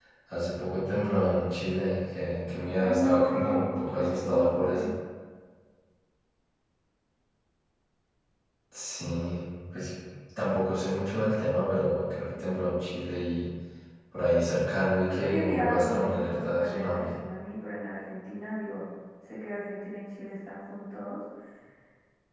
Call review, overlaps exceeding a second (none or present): present